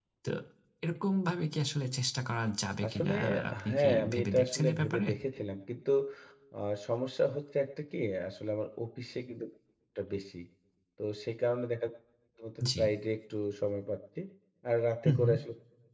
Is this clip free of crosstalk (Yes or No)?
No